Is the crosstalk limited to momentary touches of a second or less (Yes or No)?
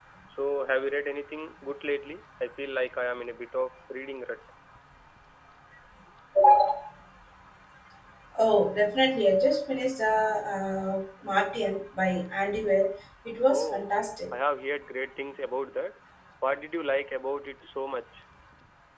Yes